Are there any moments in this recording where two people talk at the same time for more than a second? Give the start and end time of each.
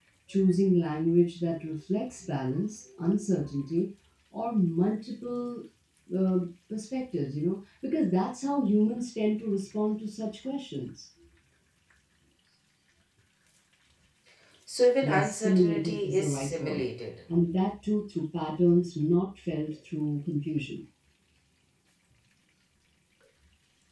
15.0-16.8

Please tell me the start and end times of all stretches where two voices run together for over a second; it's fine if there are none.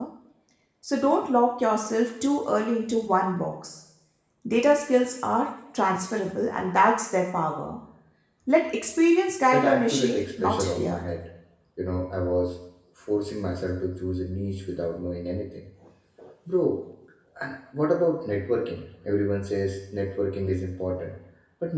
9.5-11.0

